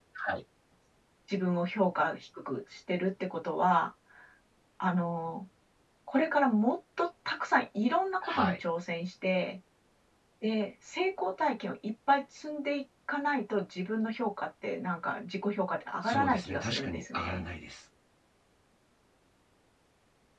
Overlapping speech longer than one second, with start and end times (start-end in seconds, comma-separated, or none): 16.0-17.4